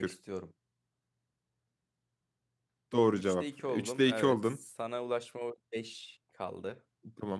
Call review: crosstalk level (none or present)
present